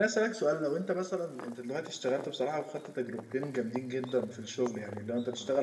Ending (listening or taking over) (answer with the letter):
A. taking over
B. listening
B